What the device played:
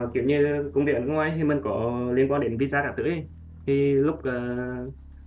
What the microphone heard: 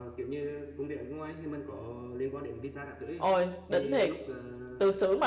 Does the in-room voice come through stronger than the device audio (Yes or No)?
Yes